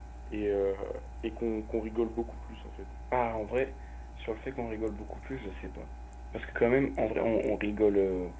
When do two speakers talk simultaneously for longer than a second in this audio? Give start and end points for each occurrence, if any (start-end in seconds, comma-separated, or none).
none